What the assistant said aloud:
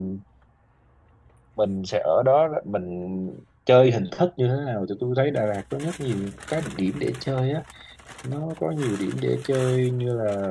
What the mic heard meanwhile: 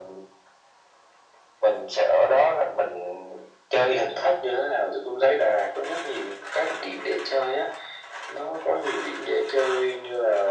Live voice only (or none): none